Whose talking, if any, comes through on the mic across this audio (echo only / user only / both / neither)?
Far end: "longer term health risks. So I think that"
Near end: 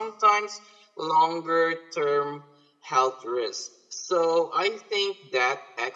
echo only